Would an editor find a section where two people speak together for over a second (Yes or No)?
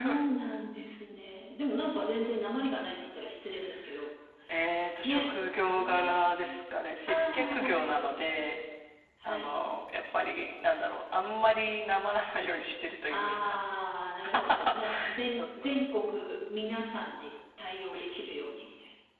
Yes